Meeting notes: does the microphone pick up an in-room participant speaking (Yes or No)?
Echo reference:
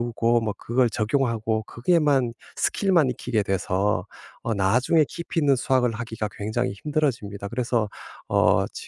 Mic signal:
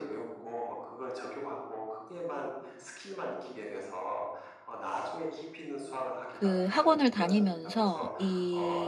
Yes